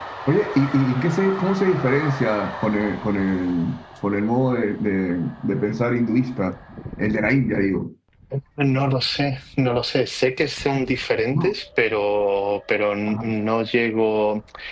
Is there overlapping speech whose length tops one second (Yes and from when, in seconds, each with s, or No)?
No